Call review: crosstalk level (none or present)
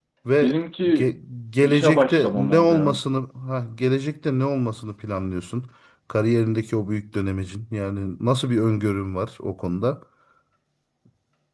present